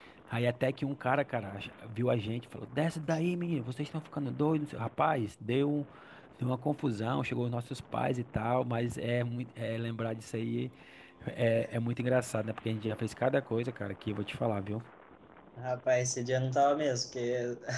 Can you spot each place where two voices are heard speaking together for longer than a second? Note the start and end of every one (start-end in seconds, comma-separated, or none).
none